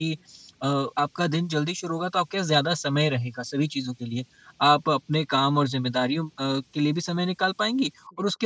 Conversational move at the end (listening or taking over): listening